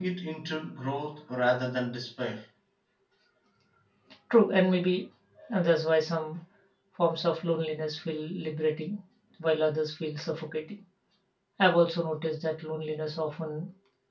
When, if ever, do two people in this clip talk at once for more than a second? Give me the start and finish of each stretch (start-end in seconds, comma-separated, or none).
none